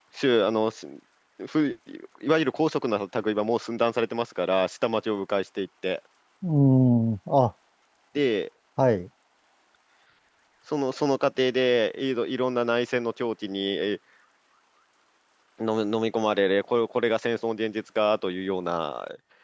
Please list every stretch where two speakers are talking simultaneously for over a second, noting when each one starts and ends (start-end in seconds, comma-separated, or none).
none